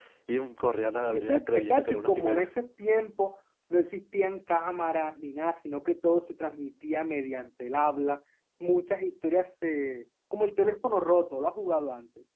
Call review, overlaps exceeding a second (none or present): present